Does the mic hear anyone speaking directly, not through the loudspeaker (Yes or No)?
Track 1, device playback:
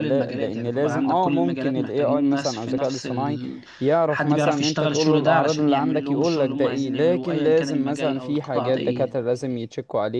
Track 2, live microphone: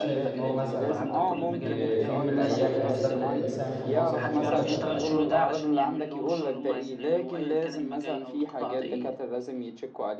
Yes